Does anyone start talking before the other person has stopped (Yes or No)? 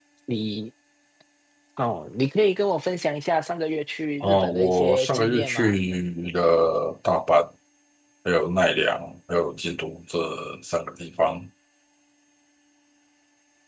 Yes